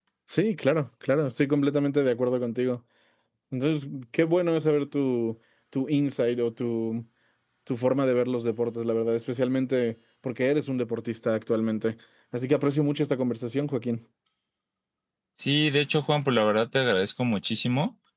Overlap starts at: none

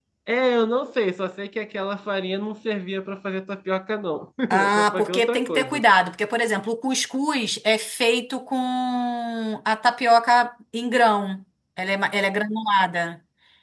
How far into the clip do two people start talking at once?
4.5 s

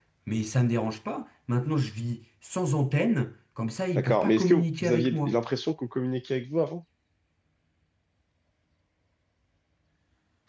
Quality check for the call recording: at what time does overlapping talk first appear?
4.0 s

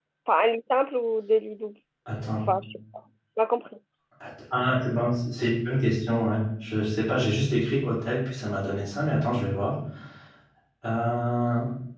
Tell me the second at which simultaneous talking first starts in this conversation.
none

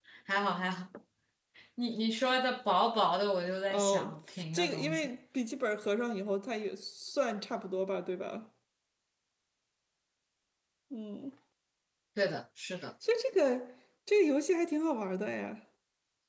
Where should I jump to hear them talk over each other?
3.6 s

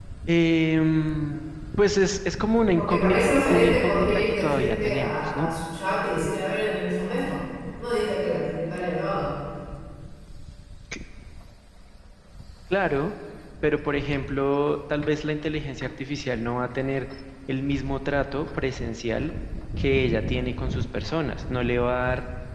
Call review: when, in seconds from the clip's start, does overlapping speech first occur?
2.8 s

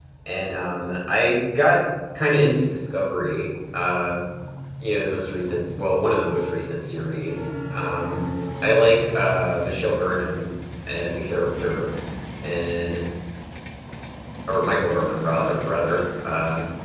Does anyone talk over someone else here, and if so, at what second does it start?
none

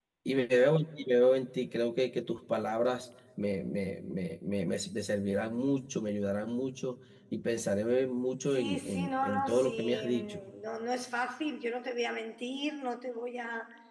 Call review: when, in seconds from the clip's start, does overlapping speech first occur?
8.5 s

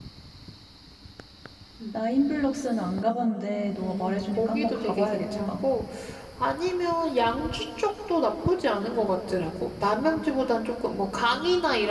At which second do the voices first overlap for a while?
3.8 s

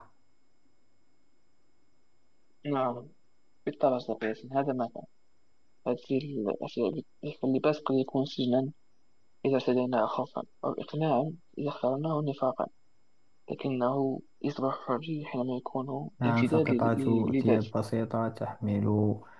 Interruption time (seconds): 16.2 s

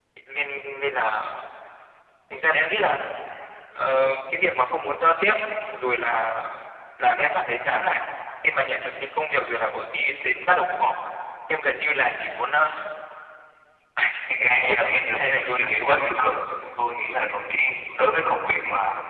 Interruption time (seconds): 14.4 s

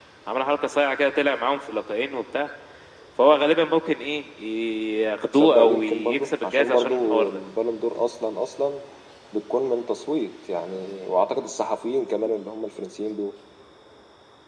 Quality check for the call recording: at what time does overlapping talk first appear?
5.3 s

